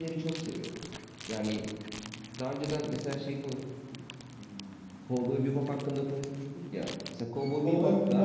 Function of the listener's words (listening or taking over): taking over